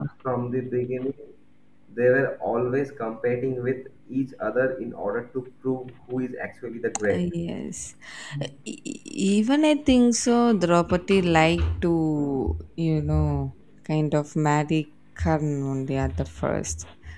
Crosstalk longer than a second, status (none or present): none